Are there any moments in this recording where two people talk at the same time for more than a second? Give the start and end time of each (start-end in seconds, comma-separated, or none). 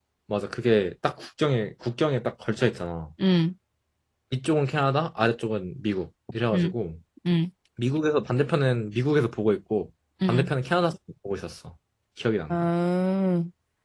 none